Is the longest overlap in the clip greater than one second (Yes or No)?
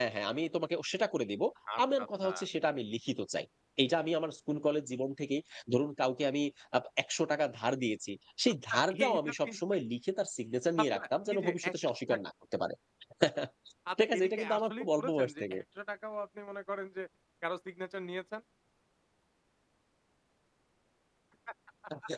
Yes